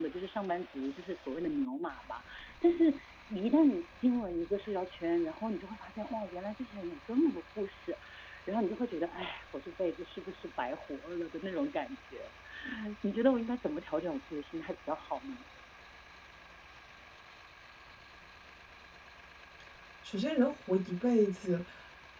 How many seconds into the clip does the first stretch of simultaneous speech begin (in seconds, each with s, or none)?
none